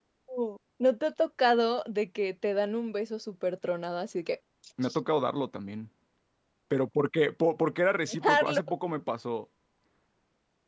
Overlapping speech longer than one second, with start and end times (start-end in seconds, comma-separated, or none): none